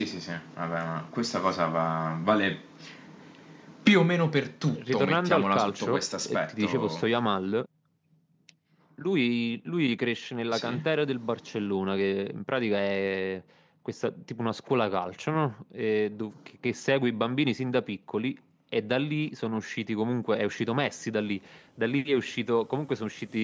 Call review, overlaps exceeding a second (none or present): present